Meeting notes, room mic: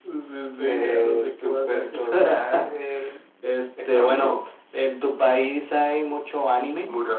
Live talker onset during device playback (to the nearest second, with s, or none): none